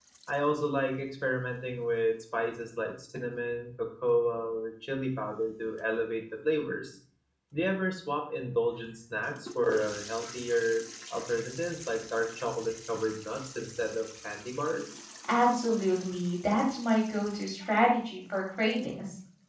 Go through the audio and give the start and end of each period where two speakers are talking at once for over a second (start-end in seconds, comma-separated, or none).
none